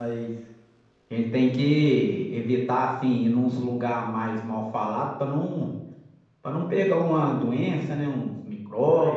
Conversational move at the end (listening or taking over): taking over